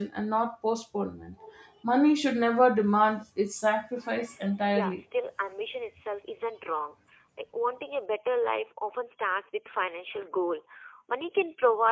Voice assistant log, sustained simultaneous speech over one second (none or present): none